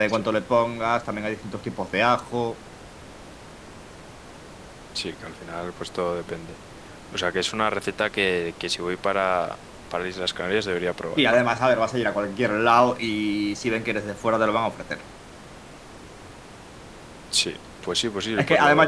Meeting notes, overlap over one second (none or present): none